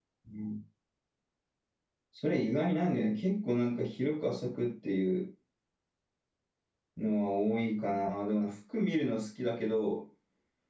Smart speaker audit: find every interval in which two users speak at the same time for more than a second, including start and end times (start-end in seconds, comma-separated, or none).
none